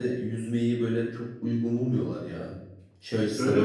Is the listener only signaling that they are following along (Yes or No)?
Yes